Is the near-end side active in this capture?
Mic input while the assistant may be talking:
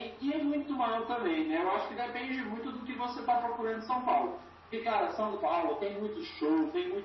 No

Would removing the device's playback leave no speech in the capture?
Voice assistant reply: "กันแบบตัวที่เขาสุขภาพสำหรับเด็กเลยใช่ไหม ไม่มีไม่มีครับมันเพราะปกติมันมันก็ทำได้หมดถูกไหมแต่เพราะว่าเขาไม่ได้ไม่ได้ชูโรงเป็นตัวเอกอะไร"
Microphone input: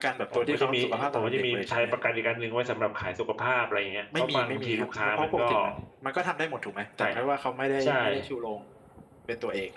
No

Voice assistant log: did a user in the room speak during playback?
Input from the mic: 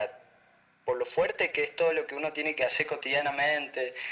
No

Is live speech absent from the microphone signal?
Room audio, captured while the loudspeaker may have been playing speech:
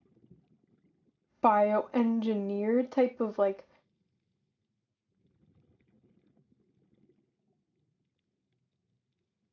No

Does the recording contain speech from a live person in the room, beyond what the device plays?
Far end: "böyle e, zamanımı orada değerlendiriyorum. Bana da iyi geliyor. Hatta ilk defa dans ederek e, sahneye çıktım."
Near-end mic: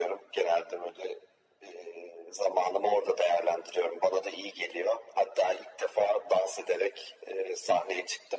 No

